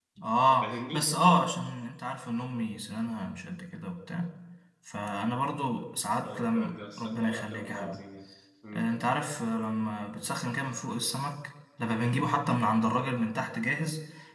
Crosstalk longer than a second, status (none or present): present